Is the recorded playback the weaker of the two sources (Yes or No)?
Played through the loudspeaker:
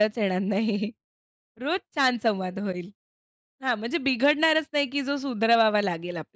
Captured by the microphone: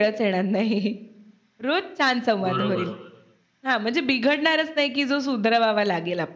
No